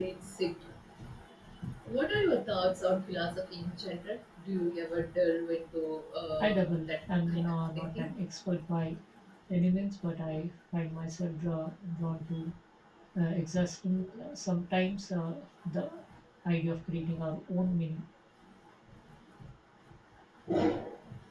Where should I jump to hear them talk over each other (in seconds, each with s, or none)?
6.4 s